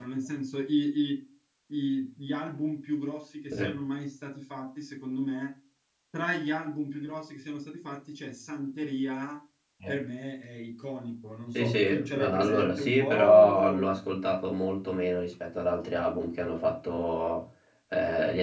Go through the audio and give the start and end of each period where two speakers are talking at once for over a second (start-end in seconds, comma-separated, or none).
11.5-14.0